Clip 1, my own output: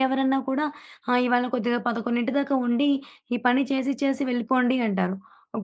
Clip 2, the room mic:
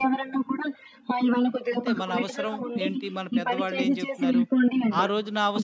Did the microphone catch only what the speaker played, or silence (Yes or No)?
No